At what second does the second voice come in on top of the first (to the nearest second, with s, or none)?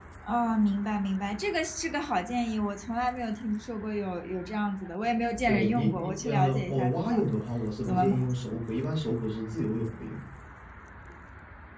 5 s